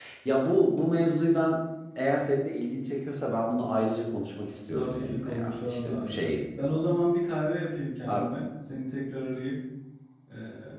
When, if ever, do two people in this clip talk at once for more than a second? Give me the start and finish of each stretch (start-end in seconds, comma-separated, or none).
4.8-6.2